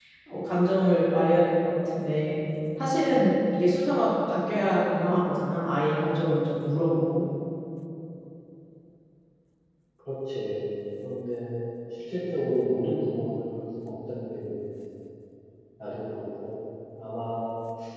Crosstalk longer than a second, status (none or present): none